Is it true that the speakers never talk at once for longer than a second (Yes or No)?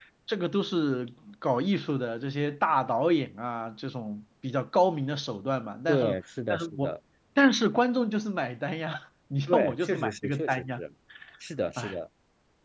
No